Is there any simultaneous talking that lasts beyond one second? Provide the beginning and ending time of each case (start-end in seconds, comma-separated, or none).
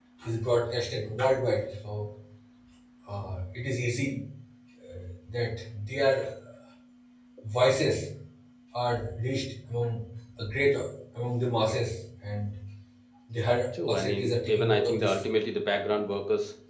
13.9-15.2